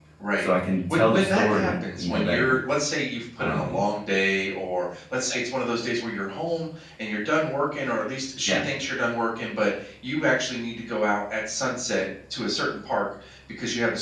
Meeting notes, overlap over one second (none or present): present